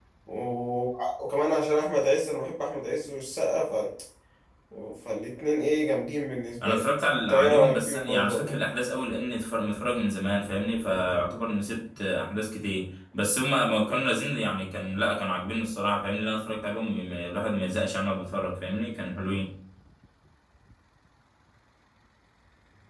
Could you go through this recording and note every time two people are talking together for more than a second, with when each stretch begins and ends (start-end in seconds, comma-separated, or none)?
7.3-8.5